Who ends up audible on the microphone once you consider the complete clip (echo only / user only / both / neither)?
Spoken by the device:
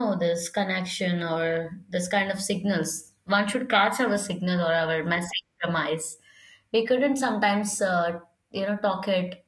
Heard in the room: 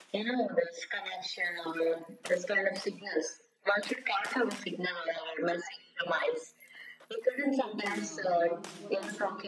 both